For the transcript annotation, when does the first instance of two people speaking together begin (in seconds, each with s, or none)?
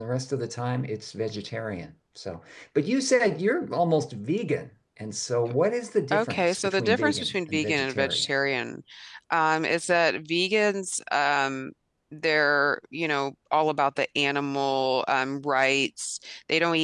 6.1 s